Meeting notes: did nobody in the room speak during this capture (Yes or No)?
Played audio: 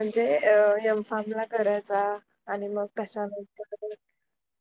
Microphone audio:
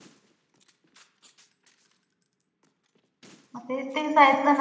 No